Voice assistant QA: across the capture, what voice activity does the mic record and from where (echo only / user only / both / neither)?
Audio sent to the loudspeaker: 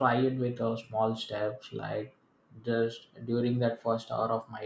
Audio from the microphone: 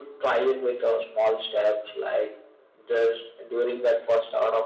echo only